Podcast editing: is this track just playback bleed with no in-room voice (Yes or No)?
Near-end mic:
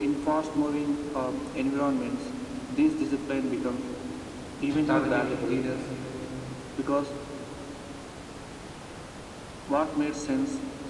No